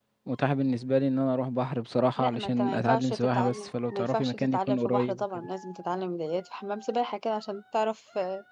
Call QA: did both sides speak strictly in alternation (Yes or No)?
No